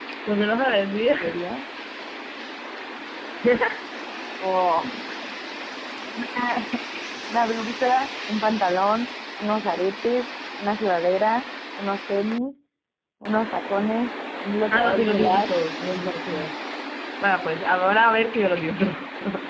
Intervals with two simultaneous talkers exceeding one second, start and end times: 14.7-16.5

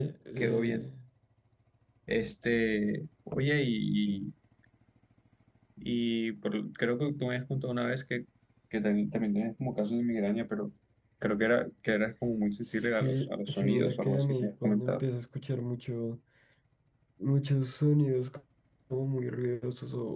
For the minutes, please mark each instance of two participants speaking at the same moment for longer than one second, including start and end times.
12.8-15.0

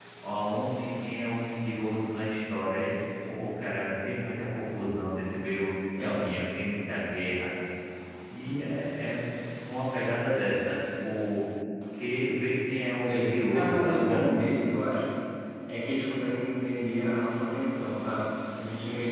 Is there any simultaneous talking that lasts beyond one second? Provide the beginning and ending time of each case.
13.0-14.4

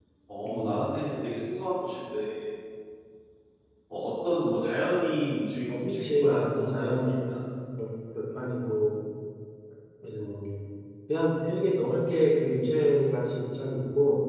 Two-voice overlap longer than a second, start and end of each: 5.7-7.3

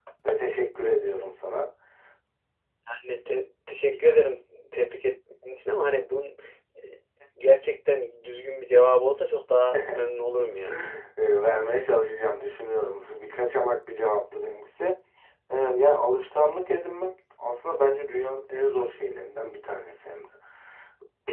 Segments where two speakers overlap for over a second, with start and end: none

